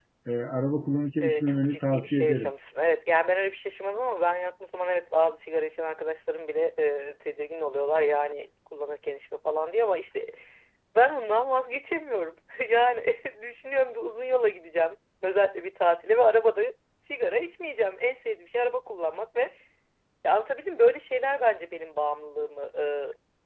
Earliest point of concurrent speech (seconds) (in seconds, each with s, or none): 1.2 s